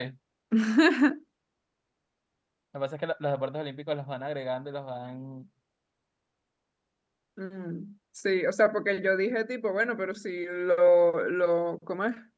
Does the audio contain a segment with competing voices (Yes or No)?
No